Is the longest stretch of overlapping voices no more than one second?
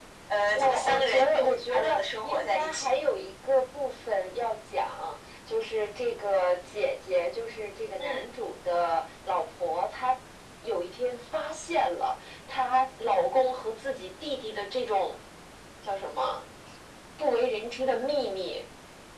No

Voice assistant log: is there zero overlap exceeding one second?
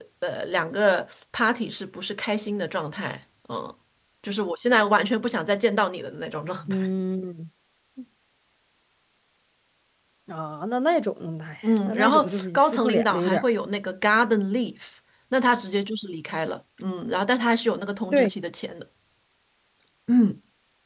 No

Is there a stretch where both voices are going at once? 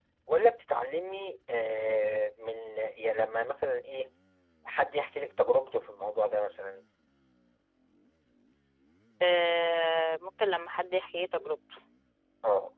No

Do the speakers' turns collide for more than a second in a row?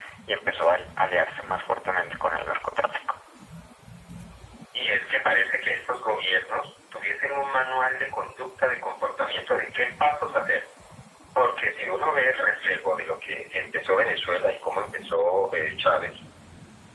No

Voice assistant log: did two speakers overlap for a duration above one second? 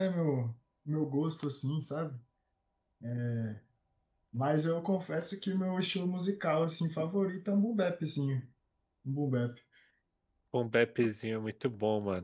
No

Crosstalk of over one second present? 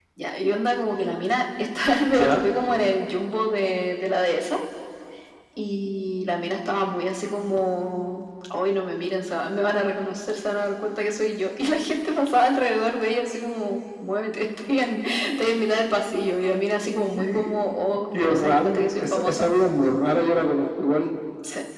Yes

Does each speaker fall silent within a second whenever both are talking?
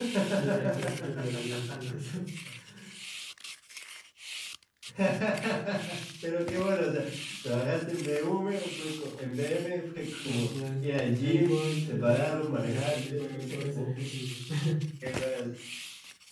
No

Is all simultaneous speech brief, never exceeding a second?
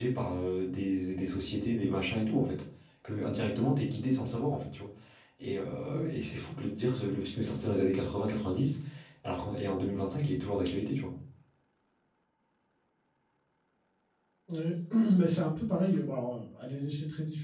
Yes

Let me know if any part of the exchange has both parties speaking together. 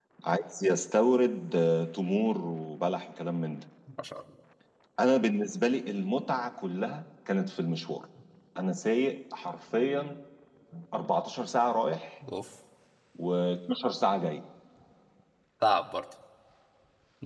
No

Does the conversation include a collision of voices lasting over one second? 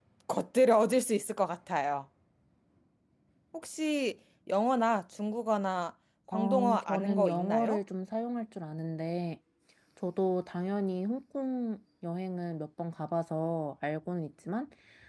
Yes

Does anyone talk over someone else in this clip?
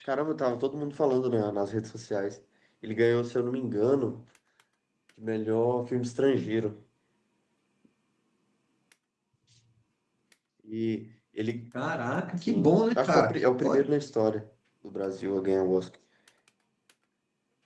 Yes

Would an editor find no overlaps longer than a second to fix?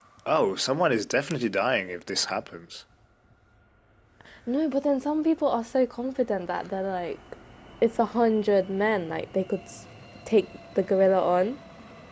Yes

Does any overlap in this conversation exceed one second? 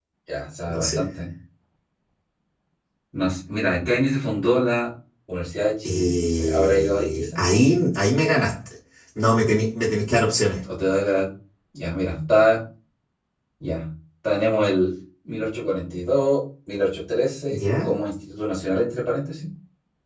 Yes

